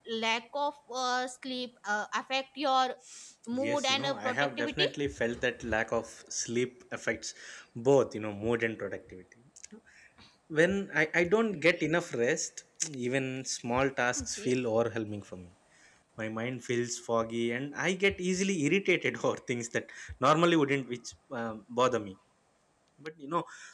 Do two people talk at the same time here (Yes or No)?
Yes